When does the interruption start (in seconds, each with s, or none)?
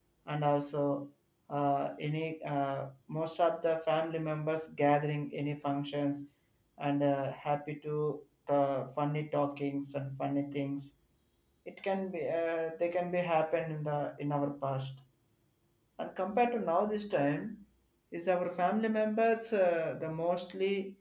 none